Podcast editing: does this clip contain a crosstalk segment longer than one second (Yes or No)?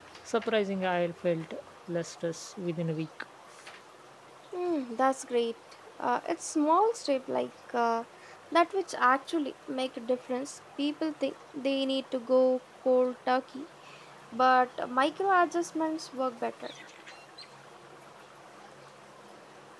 No